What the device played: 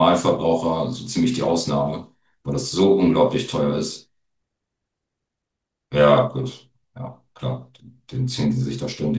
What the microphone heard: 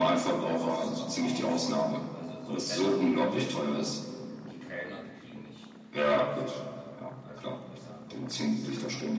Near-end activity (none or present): present